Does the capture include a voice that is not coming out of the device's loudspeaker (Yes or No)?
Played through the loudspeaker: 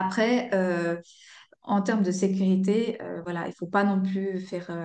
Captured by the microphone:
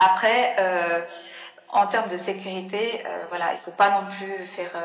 No